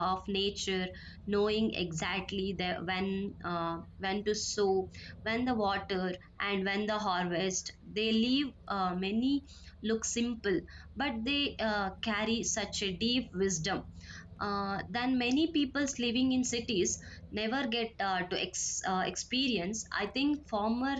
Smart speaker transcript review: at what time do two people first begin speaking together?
none

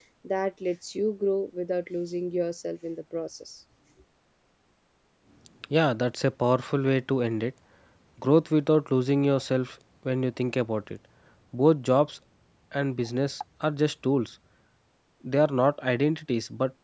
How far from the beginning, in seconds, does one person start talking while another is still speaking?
none

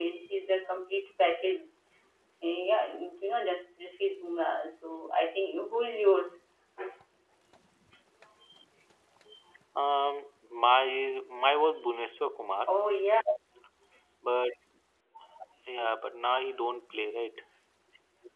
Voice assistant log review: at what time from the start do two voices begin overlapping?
none

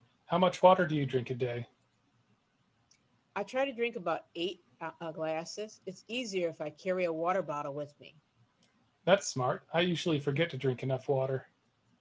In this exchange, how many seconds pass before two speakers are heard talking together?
none

